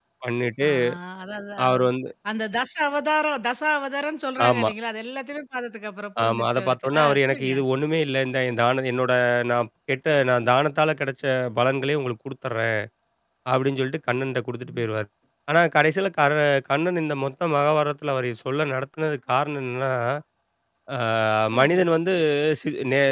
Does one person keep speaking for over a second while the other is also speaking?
Yes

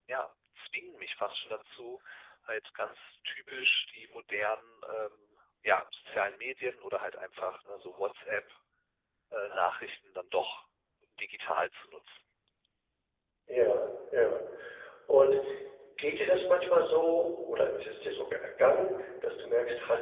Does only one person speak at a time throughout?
Yes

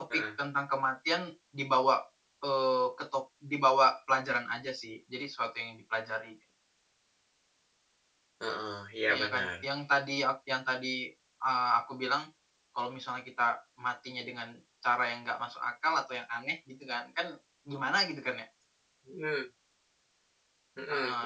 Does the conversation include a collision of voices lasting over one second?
No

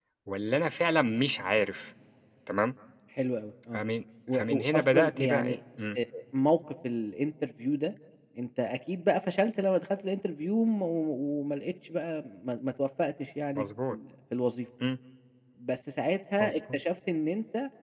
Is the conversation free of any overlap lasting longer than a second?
No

